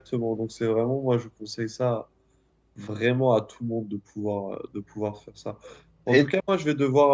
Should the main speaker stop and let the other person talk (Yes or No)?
No